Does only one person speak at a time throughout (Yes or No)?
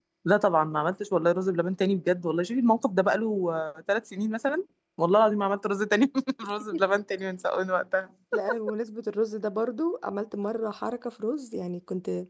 Yes